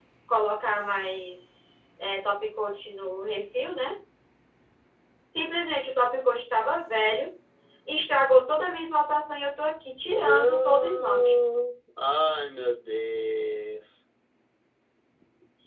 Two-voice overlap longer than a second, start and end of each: 10.1-11.3

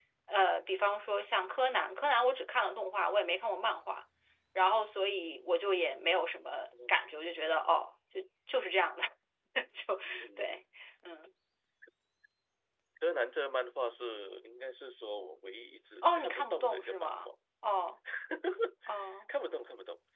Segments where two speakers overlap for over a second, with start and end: 16.0-17.3

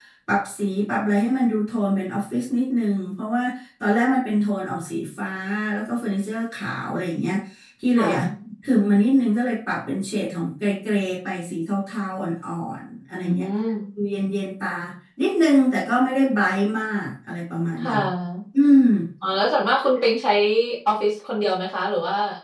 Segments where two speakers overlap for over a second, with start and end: none

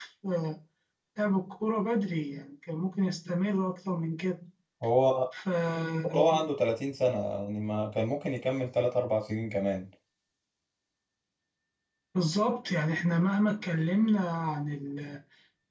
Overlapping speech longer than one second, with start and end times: none

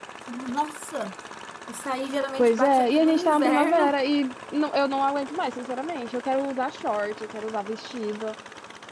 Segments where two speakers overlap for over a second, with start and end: 2.4-4.0

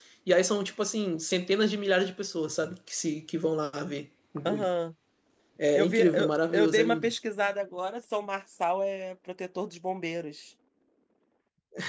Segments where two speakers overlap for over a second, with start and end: 5.8-7.1

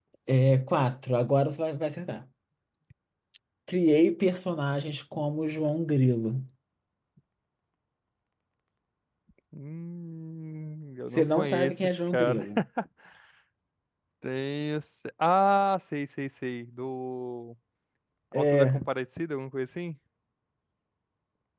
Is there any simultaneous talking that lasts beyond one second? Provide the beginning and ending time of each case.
11.1-12.5

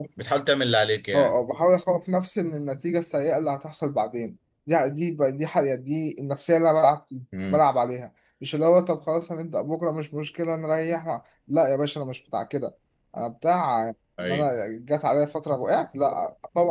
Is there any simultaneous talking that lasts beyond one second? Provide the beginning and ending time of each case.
none

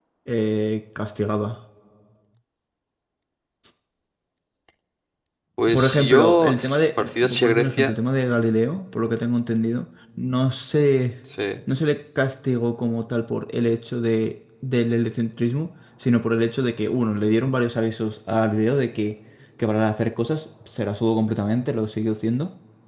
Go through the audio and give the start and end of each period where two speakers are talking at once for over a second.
5.7-7.9

